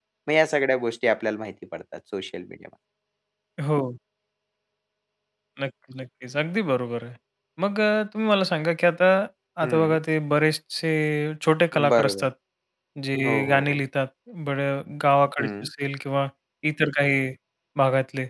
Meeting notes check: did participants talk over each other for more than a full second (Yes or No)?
No